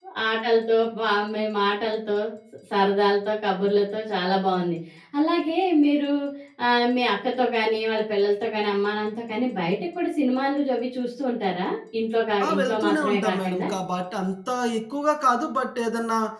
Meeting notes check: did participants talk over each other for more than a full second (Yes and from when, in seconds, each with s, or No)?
Yes, from 12.4 s